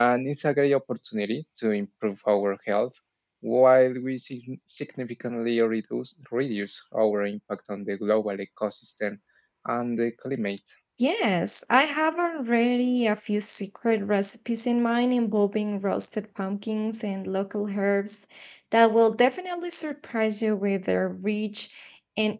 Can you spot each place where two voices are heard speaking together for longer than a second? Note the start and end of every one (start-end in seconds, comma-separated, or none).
none